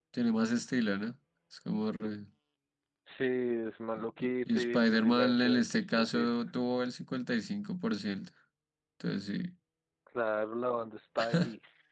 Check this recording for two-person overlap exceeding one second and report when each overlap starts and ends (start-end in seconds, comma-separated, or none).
4.2-6.3